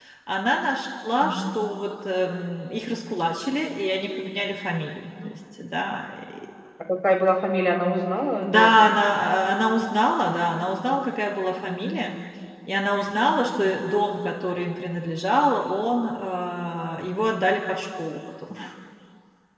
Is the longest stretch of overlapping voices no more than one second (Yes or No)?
Yes